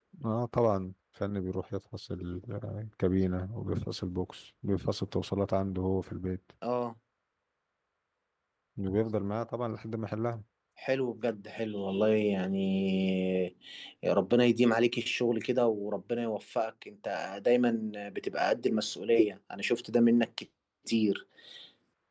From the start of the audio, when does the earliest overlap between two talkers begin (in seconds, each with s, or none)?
none